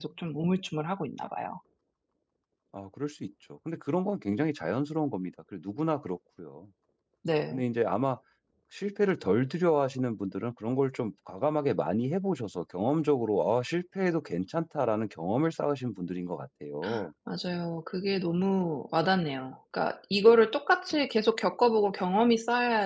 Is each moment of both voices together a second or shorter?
Yes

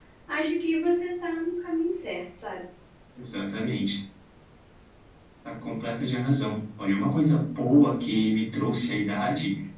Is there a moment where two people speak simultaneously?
No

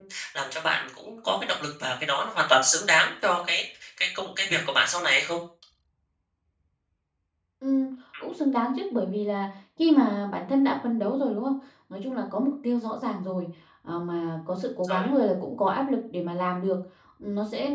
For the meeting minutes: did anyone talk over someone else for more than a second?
No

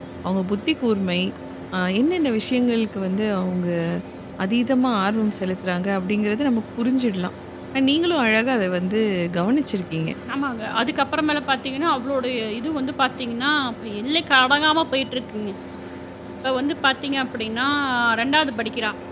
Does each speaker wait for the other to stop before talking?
Yes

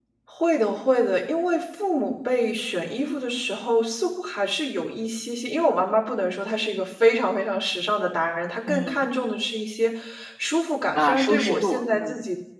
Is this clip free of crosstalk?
No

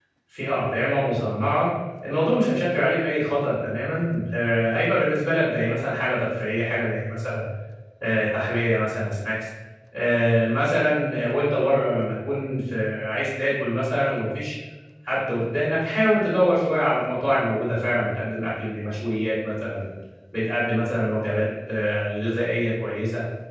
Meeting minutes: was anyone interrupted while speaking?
No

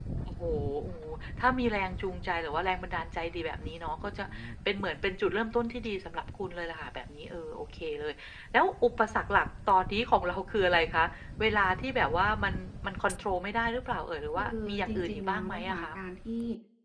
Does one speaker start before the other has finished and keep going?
Yes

